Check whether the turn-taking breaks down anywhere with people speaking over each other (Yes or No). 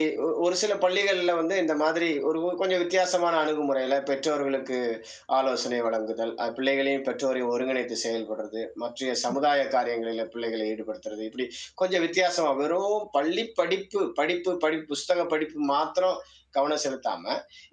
No